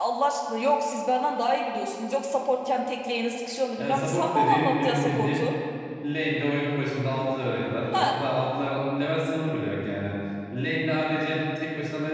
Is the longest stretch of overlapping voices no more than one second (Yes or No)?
No